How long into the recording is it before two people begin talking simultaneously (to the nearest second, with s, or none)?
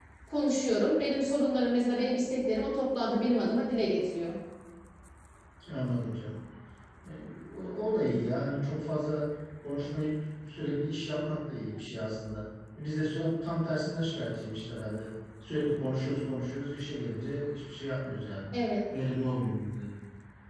none